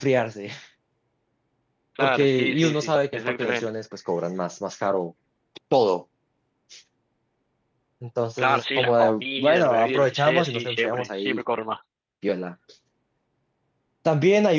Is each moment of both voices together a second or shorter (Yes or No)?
No